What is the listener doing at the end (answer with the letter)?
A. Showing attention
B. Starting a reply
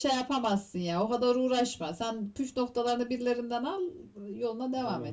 B